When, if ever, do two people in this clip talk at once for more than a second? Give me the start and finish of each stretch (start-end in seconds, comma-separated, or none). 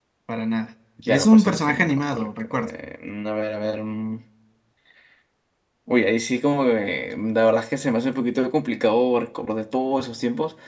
1.1-2.7